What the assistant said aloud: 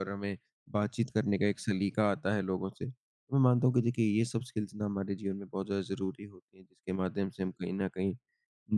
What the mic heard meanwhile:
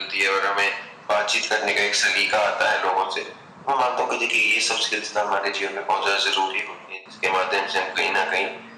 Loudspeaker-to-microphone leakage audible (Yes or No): Yes